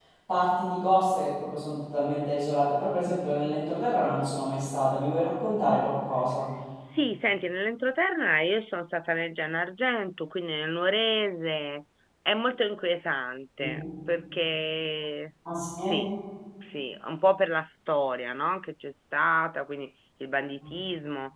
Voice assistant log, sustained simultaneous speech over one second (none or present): none